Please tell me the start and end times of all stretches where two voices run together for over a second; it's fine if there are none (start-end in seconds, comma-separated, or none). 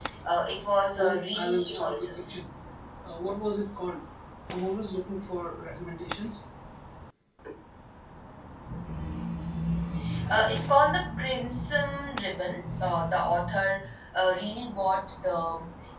0.9-2.2